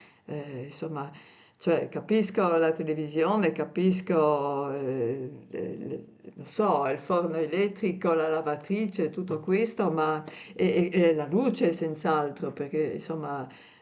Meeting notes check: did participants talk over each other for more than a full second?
No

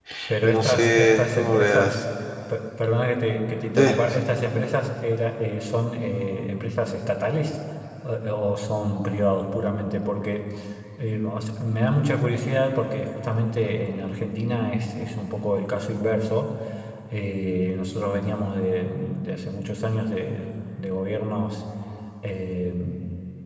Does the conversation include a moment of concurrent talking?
Yes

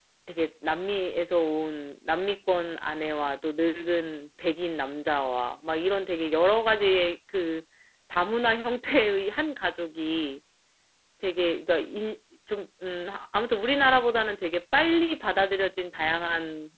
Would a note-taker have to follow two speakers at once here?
No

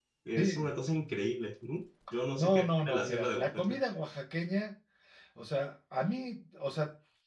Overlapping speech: Yes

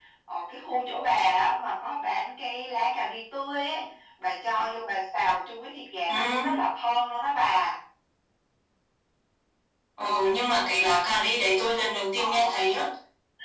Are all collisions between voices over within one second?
Yes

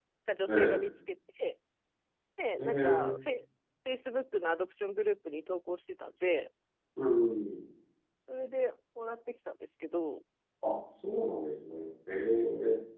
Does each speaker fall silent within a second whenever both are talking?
Yes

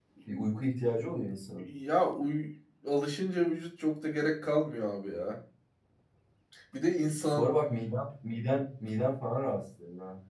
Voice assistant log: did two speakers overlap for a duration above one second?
No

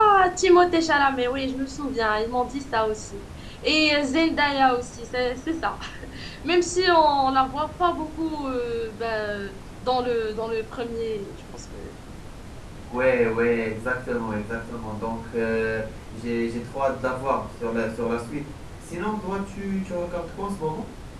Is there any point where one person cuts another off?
No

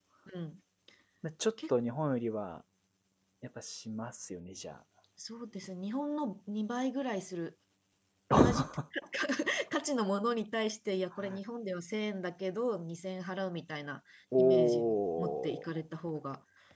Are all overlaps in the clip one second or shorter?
No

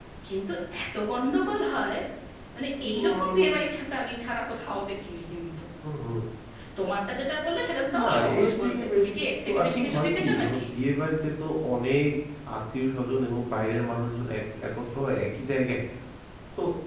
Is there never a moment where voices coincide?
No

